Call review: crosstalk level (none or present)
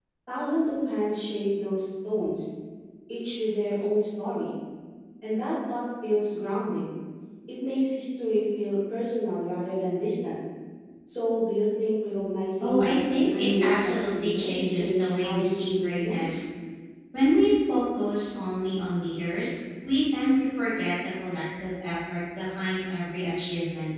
present